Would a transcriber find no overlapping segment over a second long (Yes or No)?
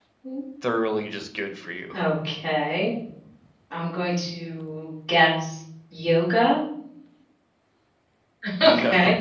Yes